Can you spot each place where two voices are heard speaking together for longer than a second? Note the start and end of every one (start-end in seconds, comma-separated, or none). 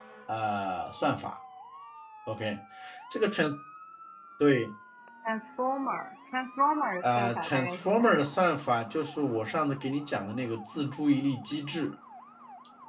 7.0-8.3